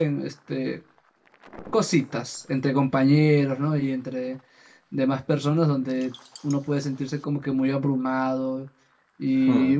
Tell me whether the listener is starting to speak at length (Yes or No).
No